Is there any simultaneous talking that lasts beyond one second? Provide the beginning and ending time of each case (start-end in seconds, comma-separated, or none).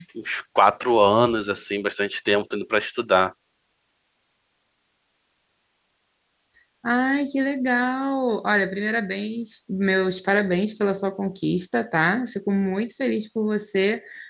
none